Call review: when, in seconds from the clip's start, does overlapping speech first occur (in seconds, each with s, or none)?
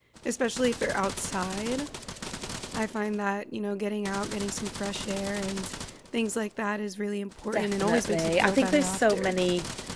7.5 s